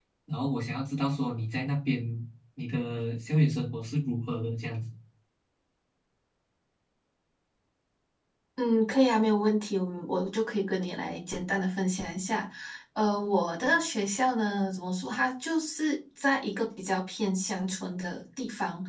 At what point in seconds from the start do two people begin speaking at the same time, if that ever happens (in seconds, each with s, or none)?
none